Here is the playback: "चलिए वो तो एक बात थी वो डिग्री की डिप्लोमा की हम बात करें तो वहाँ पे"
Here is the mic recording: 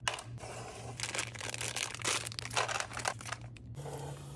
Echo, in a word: none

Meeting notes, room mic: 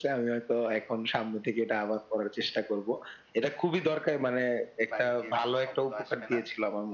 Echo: present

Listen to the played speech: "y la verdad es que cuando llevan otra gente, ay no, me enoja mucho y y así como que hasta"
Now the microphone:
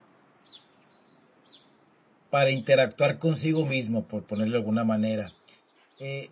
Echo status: none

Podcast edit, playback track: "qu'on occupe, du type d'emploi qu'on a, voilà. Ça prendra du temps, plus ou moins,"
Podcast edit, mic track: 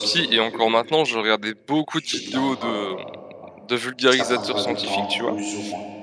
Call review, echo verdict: present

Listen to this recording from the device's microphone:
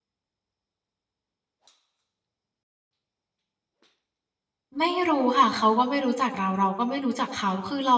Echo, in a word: none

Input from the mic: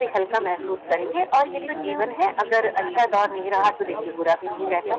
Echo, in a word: present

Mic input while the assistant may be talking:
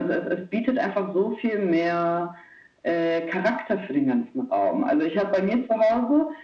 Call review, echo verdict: present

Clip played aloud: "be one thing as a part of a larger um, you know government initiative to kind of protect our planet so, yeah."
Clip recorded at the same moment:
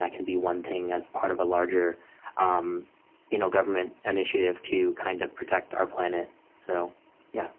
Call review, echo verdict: present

